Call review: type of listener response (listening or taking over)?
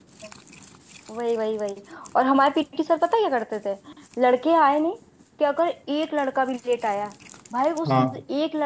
listening